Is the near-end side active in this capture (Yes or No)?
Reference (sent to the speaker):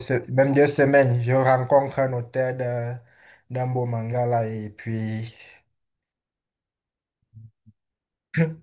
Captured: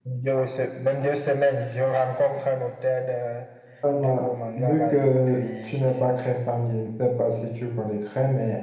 Yes